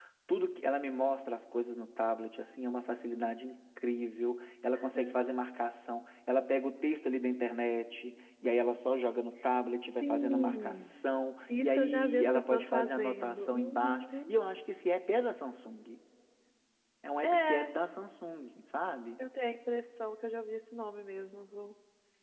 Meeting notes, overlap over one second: present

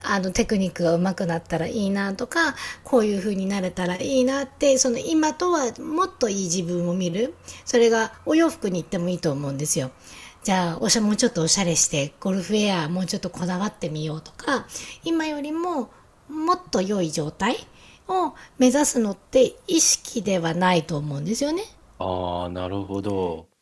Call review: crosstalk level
none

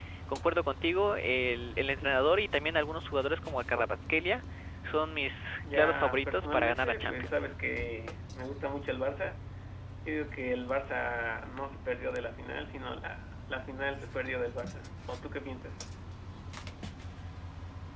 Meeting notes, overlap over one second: present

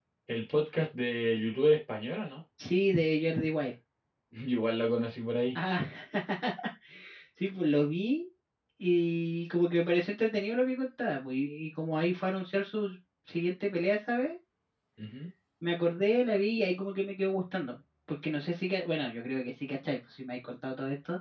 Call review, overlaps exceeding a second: none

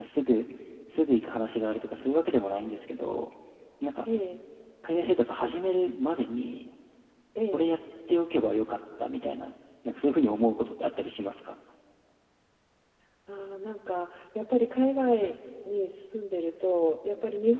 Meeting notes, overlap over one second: none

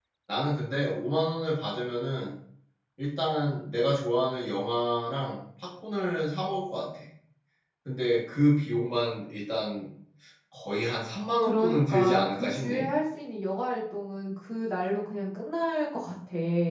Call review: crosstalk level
present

